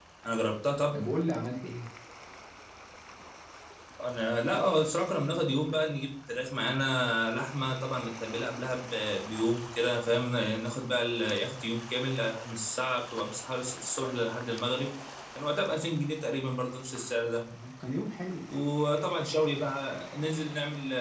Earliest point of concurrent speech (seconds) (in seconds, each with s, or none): none